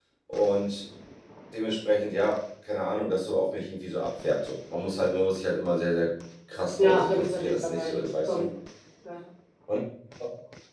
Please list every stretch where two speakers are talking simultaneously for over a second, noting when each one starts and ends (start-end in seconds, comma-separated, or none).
6.8-8.4